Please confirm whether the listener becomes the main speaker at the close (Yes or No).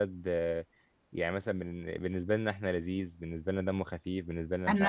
Yes